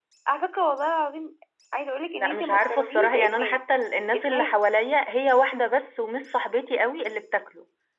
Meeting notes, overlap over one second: present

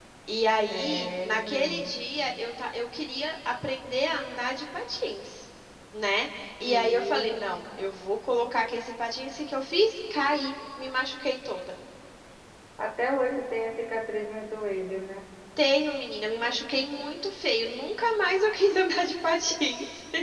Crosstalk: present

